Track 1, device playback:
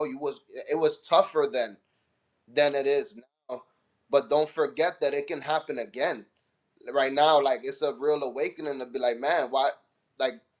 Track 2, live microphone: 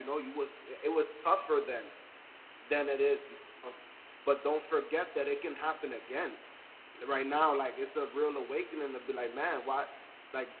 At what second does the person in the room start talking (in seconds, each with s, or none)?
none